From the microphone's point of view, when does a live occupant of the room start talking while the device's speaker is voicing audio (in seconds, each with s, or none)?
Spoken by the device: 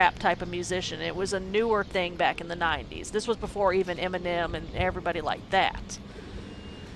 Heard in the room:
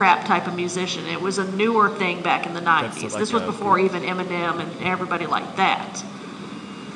2.8 s